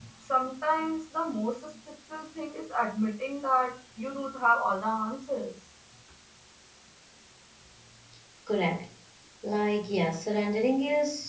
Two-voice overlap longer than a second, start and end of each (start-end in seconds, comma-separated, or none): none